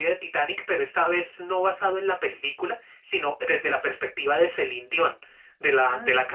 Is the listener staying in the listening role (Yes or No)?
Yes